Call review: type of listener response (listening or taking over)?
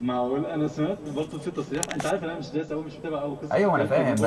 taking over